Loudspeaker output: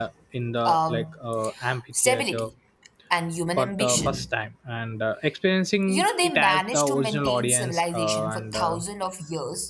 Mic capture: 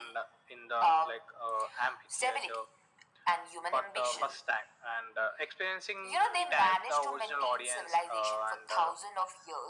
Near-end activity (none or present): none